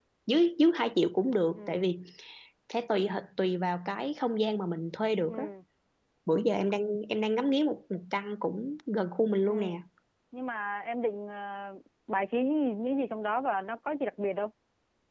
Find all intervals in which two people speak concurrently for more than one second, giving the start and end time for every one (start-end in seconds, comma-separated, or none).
none